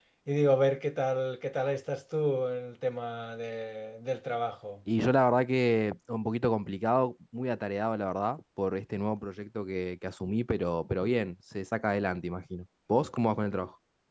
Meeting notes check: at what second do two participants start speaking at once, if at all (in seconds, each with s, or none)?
none